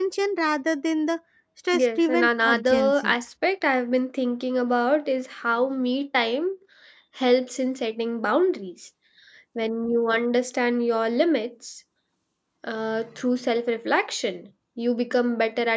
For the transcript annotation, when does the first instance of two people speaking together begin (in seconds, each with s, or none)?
1.7 s